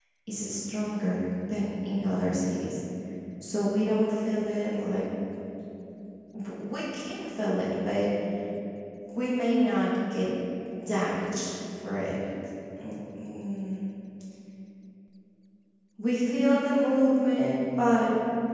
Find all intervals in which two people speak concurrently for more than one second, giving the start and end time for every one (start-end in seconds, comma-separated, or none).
none